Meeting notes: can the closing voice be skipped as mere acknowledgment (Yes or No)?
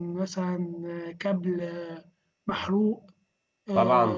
No